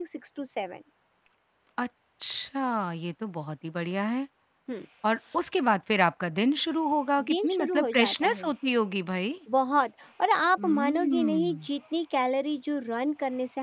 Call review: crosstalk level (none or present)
present